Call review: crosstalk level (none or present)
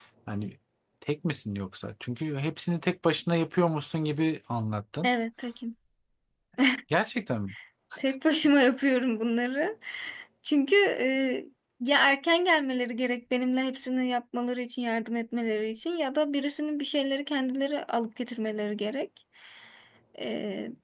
none